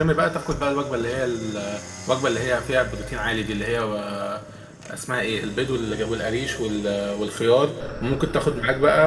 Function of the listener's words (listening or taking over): listening